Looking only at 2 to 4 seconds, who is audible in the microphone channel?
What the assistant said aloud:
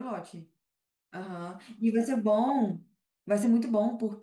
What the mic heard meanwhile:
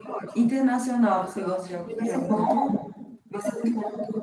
both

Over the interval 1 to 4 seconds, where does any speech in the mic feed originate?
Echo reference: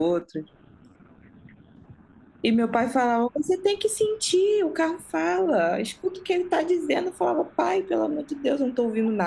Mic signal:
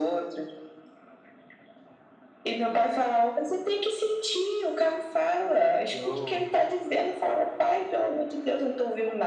echo only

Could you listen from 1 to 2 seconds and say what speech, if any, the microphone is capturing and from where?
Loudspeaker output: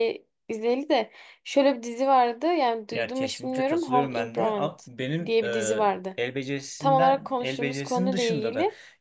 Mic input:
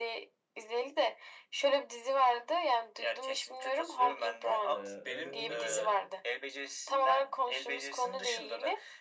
echo only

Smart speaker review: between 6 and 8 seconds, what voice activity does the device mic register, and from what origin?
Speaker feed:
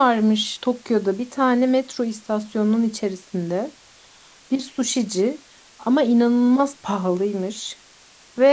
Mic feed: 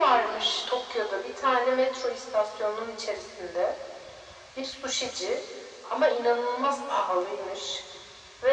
echo only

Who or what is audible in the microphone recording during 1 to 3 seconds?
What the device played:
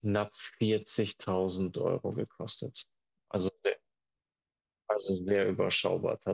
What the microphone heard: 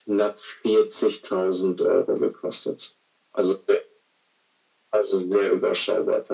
echo only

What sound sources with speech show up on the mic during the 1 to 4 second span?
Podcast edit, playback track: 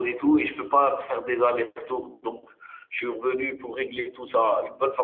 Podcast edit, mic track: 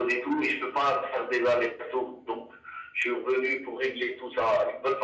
echo only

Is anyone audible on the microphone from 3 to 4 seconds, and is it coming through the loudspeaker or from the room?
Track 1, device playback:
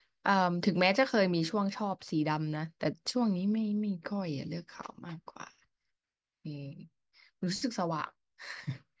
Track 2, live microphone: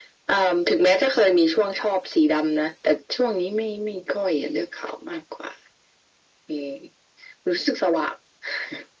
echo only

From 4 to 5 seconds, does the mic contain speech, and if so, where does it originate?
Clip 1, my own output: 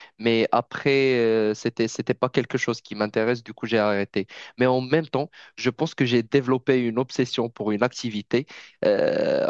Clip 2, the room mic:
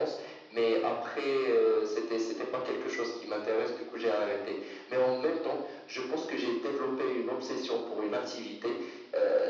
echo only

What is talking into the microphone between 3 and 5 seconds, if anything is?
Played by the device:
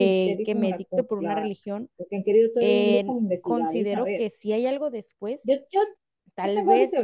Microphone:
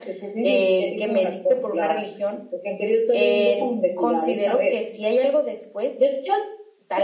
echo only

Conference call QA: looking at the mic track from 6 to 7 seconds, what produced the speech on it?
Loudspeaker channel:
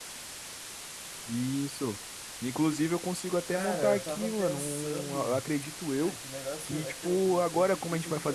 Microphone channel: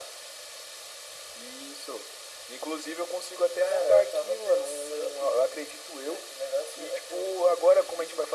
echo only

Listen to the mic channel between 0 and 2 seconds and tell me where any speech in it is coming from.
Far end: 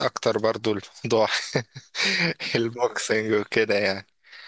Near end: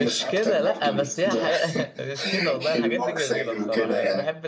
both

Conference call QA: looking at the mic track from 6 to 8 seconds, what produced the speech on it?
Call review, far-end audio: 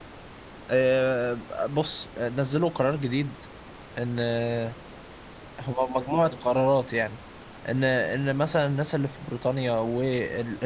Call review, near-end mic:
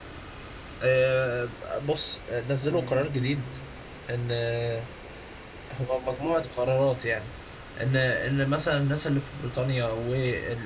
echo only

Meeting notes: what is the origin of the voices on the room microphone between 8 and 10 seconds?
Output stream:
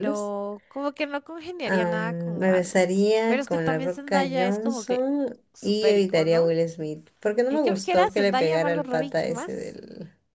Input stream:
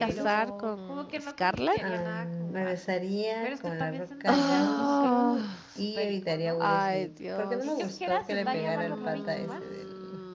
both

